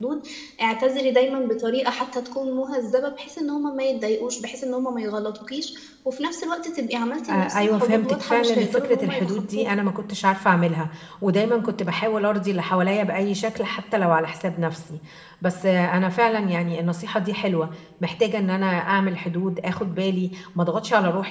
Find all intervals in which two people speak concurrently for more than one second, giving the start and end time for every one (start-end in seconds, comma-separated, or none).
7.3-9.7